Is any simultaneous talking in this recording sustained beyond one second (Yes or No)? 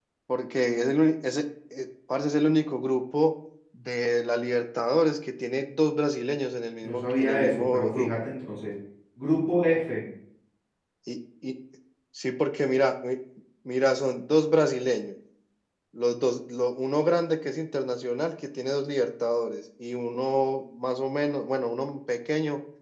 Yes